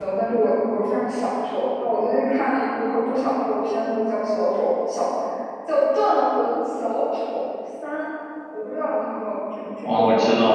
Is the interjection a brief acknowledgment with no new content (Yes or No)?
No